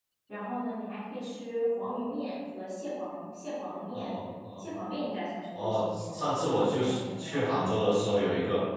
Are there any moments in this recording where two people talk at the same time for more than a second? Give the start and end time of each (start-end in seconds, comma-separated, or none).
5.6-7.5